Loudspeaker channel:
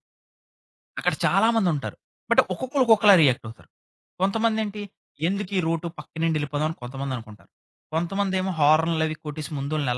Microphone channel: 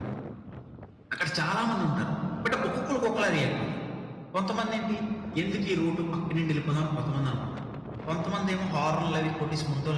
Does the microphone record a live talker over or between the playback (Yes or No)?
No